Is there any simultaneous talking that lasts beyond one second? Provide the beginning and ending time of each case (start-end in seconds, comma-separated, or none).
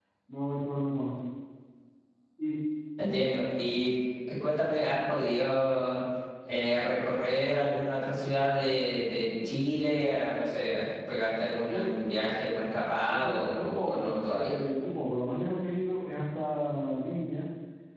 13.0-14.5